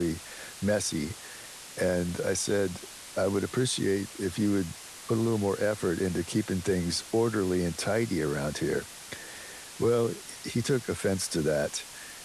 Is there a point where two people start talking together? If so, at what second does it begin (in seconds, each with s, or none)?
none